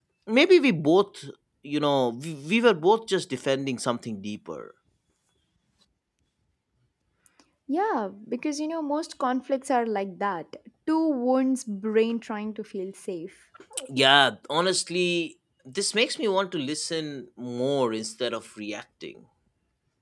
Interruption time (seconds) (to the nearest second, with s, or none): none